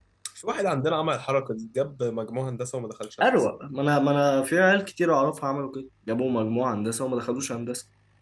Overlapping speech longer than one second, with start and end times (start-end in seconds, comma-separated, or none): none